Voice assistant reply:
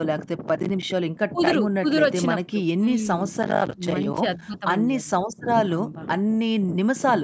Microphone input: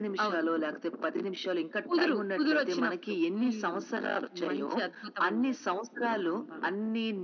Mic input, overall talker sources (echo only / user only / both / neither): echo only